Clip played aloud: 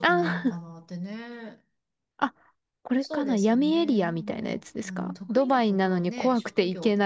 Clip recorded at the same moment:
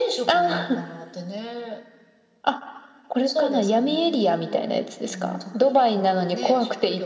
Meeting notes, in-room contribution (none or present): none